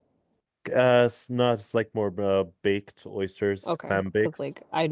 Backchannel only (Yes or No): No